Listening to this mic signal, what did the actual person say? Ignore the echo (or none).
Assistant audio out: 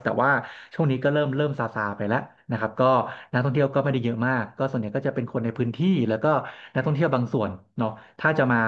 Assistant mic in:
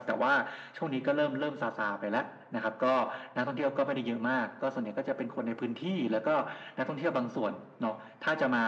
none